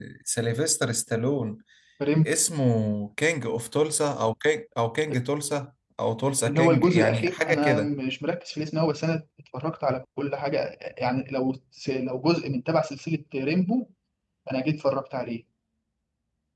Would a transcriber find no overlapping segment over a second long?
No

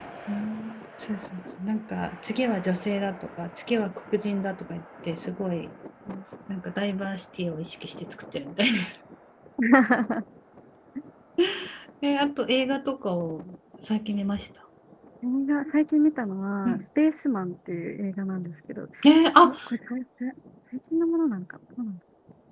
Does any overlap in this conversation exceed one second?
No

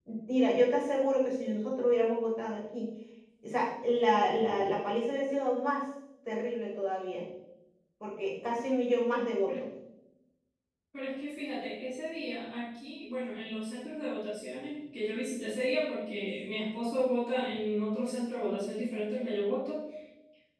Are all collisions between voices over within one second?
Yes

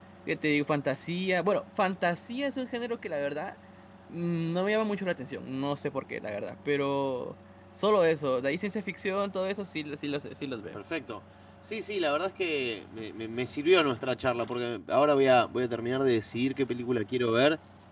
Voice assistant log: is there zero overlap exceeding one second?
Yes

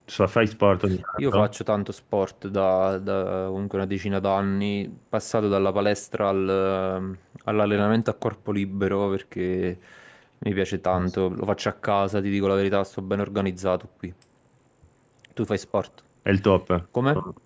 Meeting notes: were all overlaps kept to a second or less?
Yes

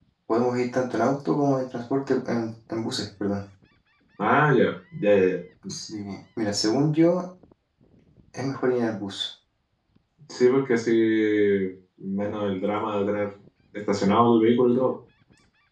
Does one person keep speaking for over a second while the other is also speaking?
No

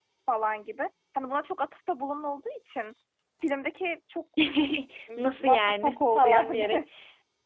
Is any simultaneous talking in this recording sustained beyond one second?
Yes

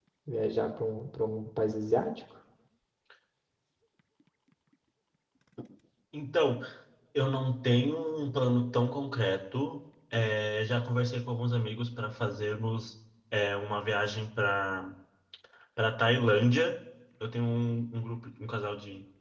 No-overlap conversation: Yes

